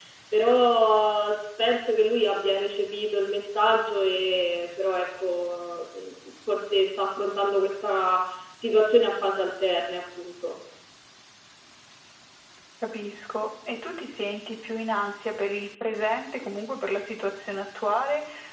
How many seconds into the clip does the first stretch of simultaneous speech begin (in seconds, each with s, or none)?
none